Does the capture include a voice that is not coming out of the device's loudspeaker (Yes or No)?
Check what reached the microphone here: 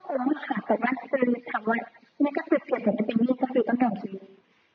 No